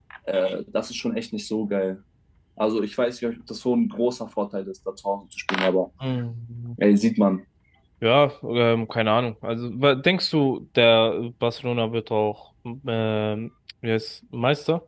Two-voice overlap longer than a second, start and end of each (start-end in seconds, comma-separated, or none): none